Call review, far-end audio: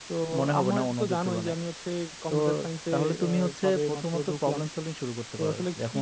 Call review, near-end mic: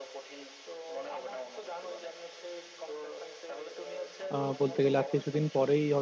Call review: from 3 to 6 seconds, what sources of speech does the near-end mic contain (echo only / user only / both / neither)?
both